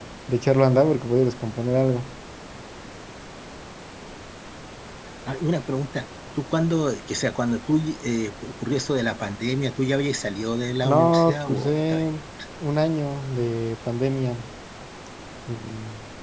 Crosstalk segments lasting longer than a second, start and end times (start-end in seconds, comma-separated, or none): 10.8-12.1